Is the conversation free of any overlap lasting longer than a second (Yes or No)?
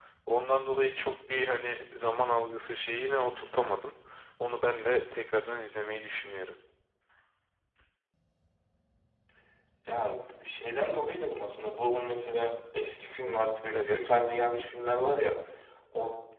Yes